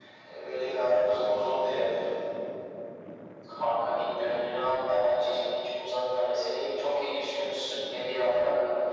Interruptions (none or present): none